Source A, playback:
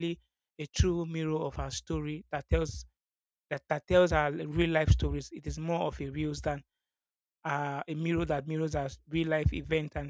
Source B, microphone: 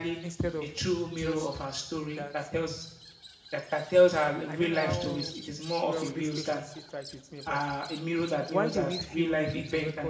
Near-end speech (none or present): present